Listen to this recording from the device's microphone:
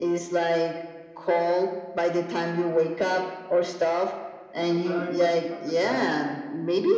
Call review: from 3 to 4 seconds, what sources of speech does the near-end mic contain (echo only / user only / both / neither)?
echo only